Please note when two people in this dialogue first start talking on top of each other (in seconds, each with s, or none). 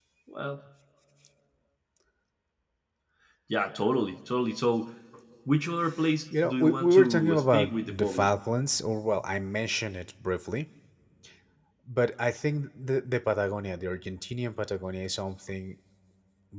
6.3 s